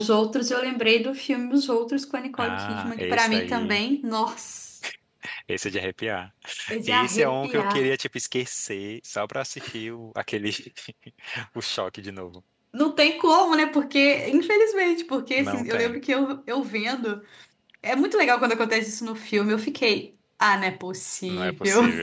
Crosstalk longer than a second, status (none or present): present